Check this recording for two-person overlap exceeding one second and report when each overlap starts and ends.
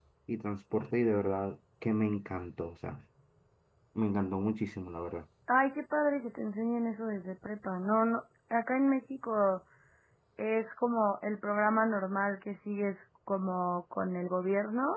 none

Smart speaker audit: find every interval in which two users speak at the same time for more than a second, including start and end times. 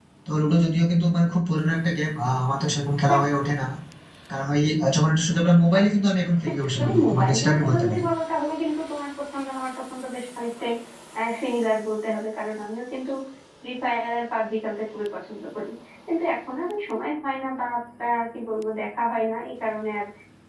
6.7-8.1

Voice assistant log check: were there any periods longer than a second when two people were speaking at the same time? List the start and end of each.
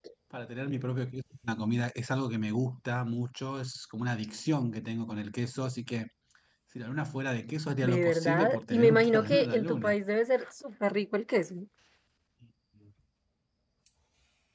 7.8-10.0

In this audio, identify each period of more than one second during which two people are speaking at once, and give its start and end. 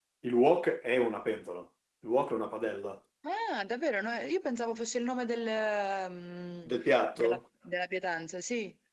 none

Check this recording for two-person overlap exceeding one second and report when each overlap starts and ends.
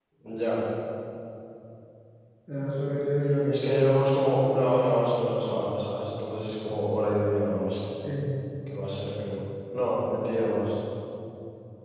none

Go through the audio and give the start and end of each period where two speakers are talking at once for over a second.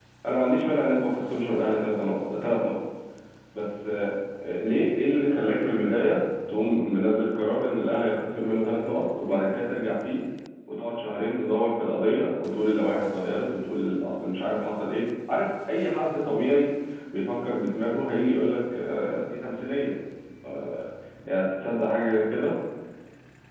none

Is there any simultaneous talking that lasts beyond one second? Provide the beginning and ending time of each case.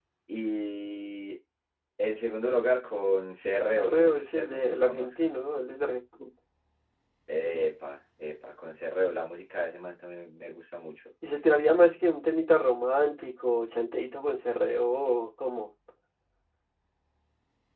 3.7-5.1

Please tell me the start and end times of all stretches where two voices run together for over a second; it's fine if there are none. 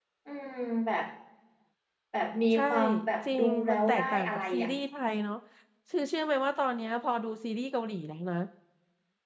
3.3-4.7

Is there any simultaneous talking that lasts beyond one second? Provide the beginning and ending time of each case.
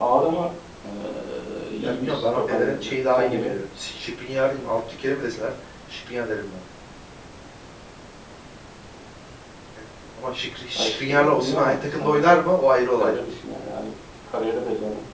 1.8-3.5, 10.8-12.3

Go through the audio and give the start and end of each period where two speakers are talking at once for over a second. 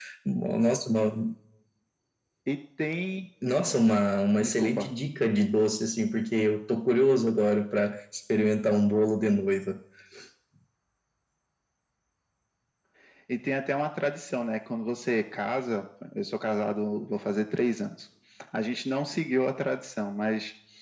none

